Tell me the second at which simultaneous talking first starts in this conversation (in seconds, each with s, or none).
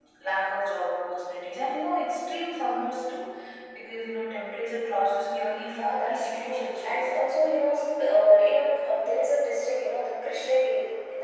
5.7 s